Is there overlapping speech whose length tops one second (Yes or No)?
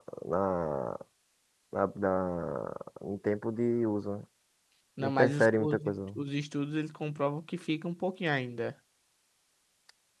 Yes